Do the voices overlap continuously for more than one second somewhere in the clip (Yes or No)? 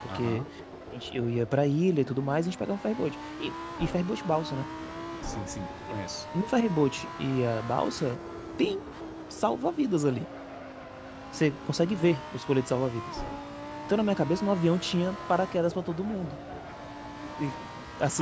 No